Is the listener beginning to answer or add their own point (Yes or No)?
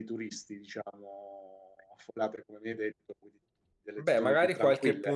Yes